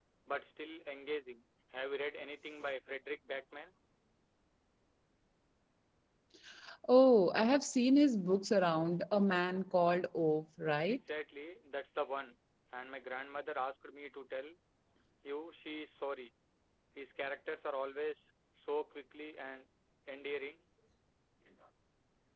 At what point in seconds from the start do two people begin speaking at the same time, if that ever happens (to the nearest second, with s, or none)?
none